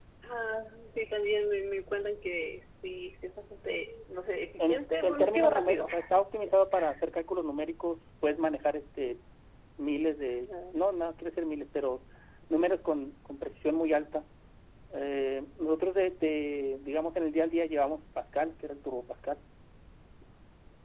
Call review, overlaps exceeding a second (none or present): present